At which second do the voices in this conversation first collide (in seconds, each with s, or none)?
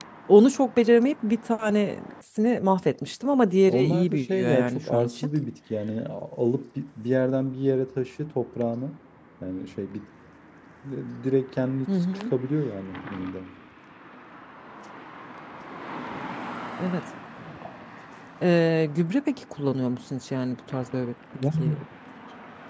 3.7 s